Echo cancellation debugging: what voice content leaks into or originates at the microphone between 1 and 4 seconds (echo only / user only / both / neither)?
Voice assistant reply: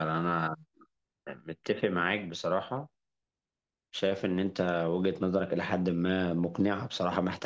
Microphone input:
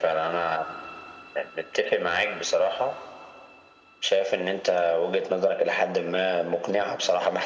echo only